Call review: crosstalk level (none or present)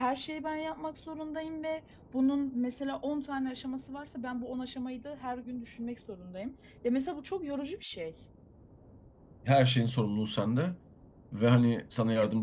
none